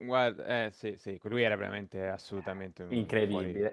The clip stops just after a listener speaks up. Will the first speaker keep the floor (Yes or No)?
No